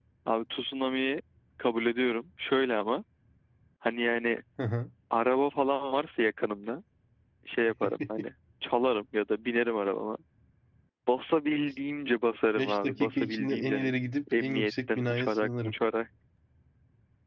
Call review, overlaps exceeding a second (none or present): present